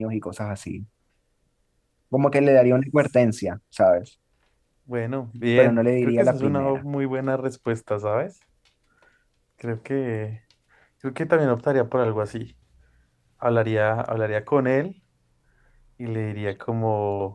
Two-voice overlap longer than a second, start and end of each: 5.6-6.8

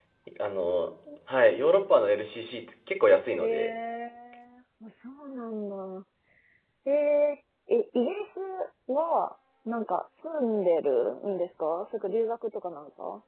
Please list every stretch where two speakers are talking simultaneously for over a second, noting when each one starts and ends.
none

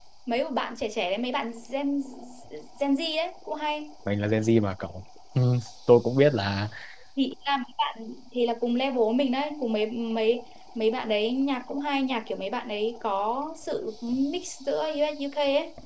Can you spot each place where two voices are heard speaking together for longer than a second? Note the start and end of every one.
none

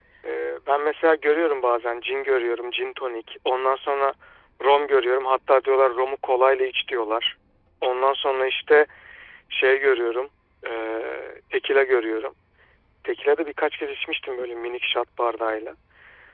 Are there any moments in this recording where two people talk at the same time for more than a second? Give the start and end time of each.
none

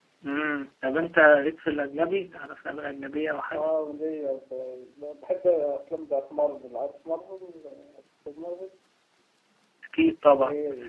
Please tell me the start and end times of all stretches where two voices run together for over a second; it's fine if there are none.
none

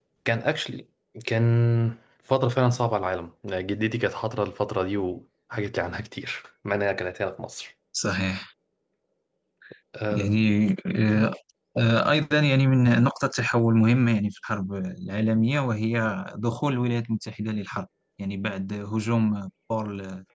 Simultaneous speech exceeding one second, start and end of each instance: none

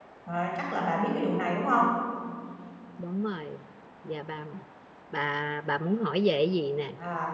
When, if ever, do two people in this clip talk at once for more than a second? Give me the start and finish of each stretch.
none

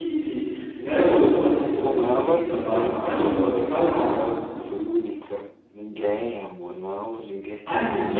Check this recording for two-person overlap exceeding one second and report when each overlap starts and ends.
1.8-3.4

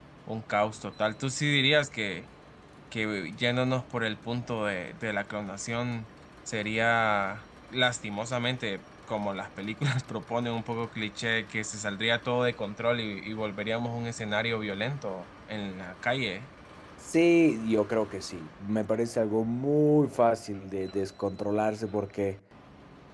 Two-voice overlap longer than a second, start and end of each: none

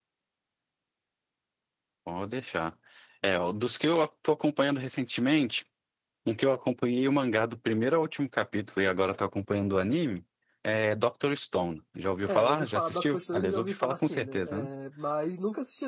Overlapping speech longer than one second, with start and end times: 12.3-14.7

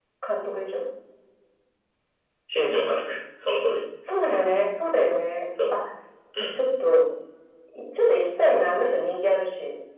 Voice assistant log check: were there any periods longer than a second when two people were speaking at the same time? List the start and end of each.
none

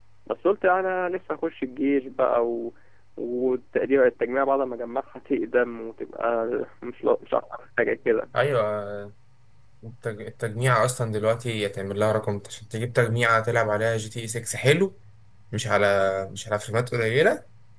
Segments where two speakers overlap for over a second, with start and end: none

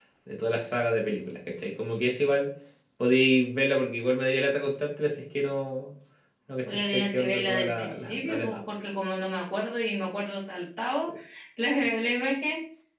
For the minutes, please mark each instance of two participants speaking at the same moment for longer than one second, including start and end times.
6.7-8.6

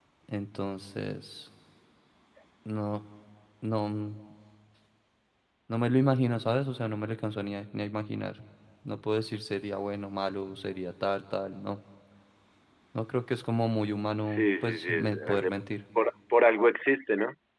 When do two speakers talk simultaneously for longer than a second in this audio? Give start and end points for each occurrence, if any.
14.3-15.5

